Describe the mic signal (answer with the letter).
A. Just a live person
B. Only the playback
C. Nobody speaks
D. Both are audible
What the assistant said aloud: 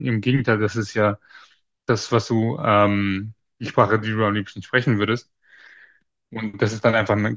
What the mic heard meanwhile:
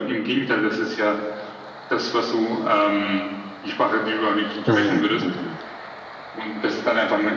D